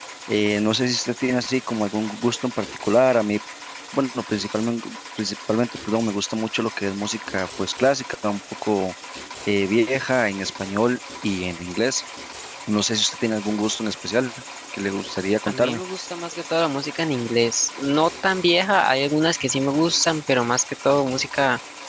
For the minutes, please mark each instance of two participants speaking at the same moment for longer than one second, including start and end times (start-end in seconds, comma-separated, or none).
none